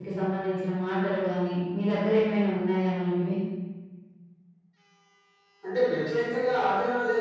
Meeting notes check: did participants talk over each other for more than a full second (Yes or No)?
No